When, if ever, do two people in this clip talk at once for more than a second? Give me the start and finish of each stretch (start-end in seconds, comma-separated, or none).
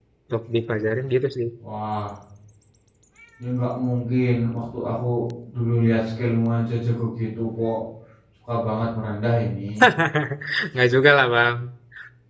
none